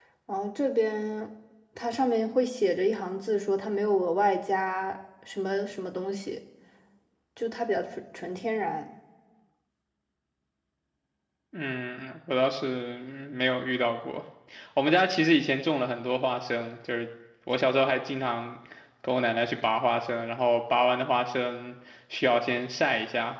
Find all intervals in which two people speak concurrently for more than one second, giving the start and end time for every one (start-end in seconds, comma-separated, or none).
none